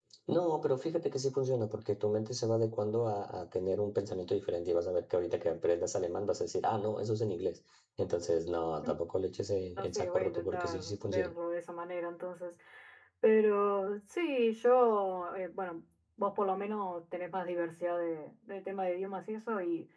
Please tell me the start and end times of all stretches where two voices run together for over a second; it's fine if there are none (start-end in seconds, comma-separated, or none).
9.8-11.3